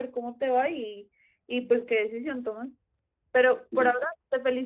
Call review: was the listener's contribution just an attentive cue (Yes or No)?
Yes